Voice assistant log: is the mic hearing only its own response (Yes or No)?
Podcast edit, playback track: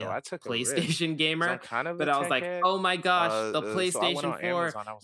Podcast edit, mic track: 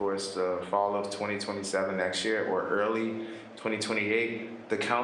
No